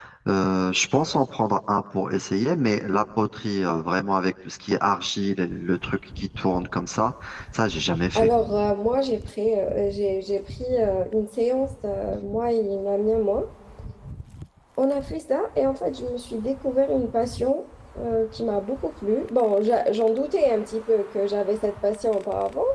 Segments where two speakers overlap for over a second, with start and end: none

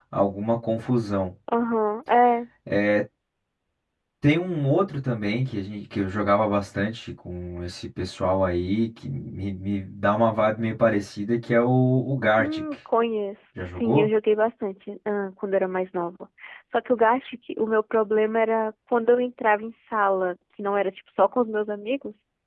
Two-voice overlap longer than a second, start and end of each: none

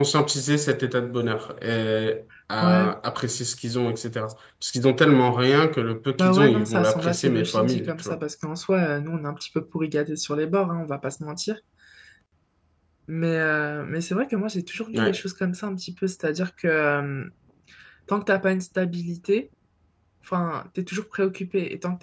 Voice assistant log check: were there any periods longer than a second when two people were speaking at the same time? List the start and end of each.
6.2-8.2

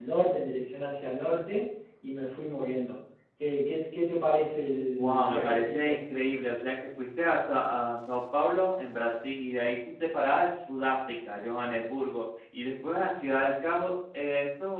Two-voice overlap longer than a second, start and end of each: 4.8-6.0

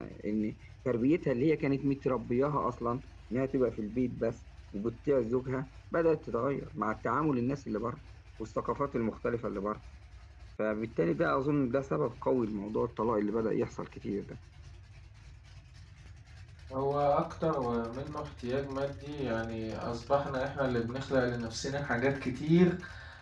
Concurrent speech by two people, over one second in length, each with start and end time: none

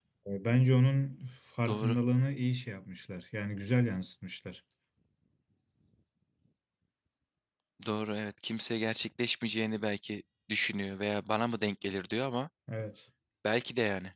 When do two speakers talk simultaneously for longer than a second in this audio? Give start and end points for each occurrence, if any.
none

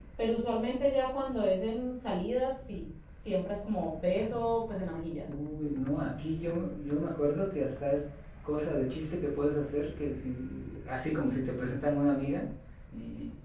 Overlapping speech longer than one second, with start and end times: none

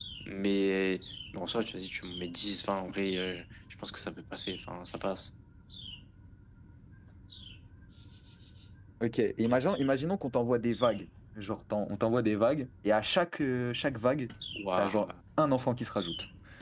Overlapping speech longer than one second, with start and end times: none

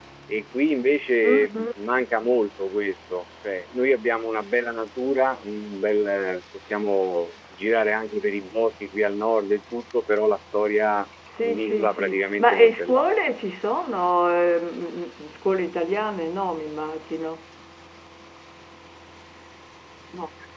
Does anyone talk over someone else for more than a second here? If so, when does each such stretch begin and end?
11.4-13.0

